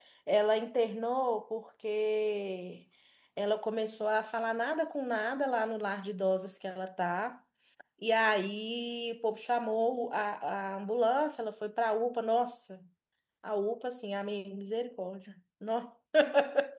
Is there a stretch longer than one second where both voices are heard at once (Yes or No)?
No